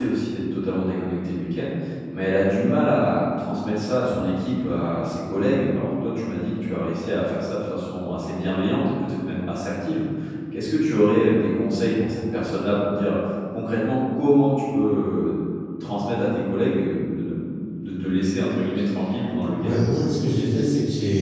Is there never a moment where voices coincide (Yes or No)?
Yes